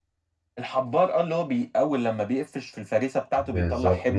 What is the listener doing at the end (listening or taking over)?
taking over